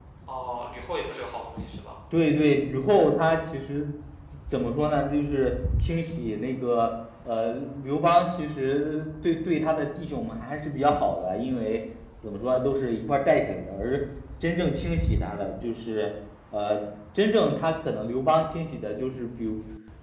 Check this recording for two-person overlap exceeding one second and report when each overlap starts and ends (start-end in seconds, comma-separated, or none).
none